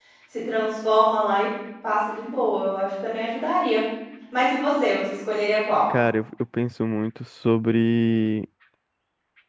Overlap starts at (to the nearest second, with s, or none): none